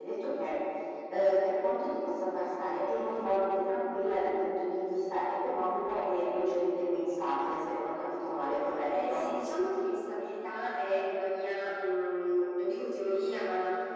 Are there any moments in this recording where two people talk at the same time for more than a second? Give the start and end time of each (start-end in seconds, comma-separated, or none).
none